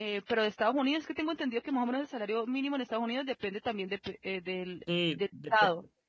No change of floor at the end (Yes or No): No